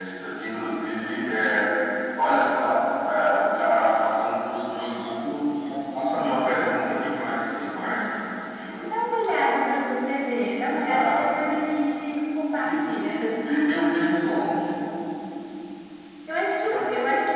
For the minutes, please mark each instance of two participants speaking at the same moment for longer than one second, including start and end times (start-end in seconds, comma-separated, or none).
none